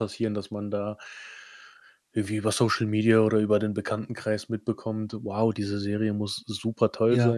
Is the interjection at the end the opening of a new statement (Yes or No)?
No